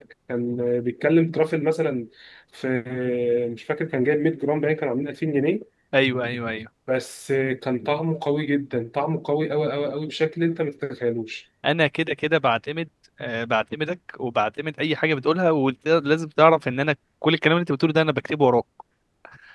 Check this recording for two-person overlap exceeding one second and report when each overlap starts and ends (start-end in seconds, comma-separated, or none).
none